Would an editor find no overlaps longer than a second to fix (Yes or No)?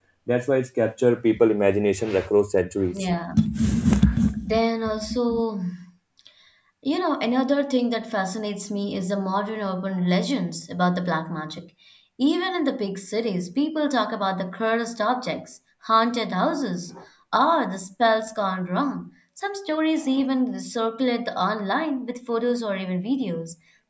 Yes